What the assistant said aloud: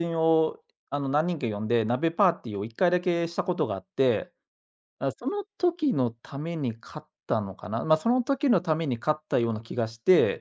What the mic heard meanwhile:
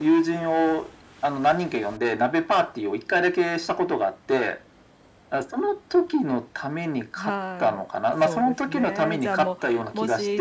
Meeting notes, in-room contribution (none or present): present